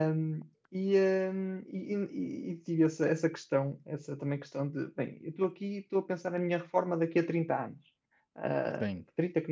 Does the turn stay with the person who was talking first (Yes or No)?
Yes